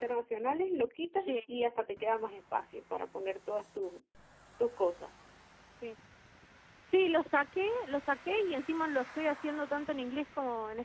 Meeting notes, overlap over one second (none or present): none